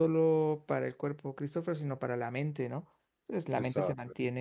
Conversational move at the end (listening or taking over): listening